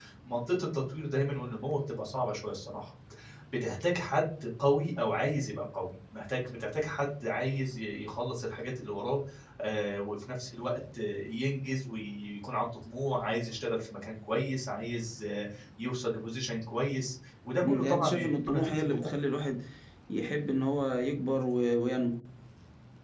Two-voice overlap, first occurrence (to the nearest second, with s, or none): 18 s